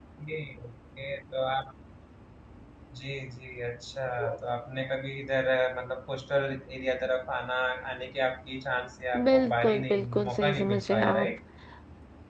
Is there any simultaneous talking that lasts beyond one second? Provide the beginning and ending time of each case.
9.3-11.3

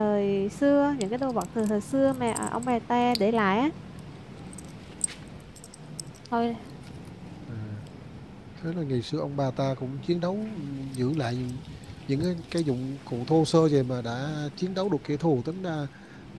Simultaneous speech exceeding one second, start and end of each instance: none

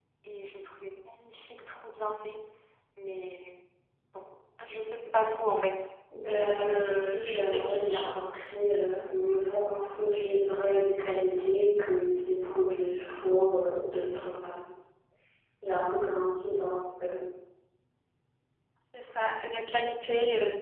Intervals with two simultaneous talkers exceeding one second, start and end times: 6.5-8.1

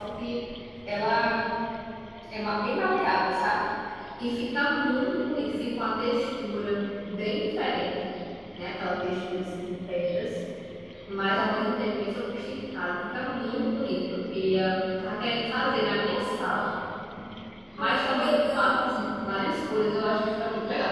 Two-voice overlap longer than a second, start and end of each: 17.8-19.0

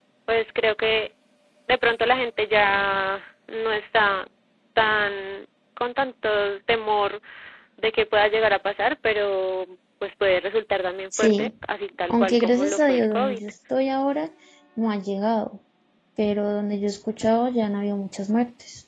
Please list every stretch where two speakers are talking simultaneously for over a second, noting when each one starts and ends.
12.1-13.4

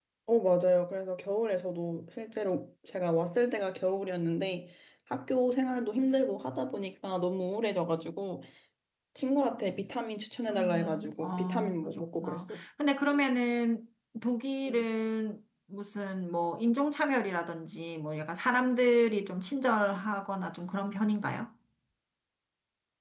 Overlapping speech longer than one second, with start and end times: 10.5-12.6

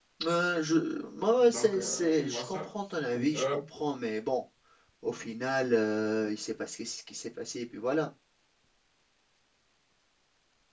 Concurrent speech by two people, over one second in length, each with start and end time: 1.4-2.7

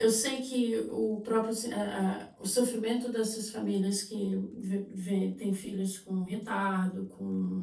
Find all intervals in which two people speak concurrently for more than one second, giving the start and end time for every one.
none

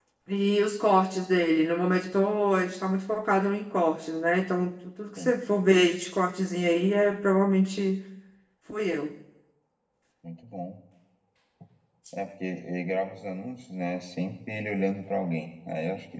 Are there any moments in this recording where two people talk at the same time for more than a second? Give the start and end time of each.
none

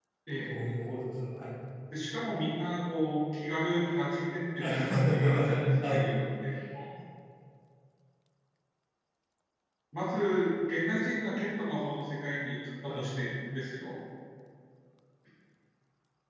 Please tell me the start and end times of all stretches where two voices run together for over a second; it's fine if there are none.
4.7-6.1

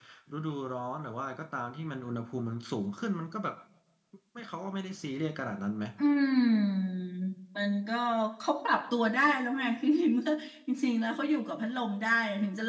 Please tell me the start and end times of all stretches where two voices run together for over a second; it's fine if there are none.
none

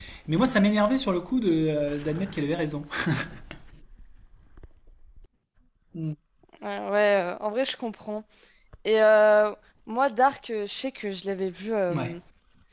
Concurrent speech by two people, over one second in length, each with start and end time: none

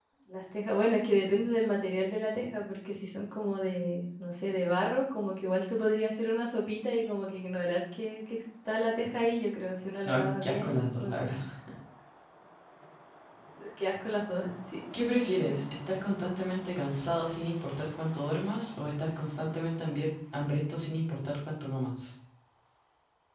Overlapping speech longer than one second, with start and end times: 10.0-11.3

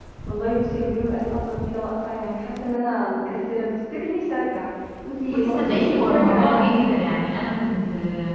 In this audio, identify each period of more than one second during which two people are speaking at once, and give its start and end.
5.3-6.7

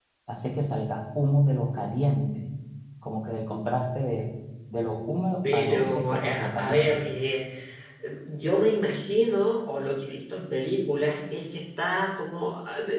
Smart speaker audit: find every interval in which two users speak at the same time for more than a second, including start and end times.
5.4-7.0

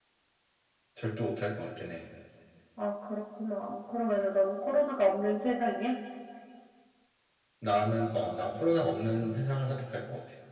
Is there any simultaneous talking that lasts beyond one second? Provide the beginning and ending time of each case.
none

